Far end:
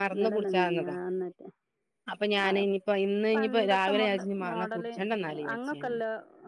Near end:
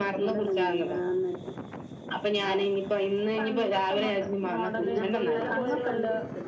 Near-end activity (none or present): present